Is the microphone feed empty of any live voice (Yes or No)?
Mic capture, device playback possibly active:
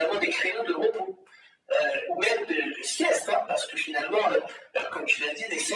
Yes